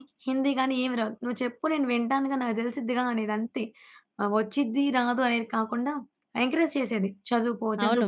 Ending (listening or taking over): taking over